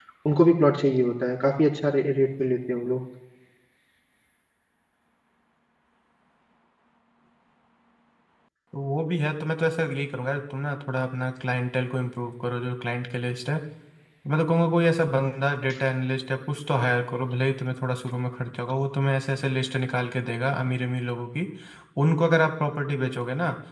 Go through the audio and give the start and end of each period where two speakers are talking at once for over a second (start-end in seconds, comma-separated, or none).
none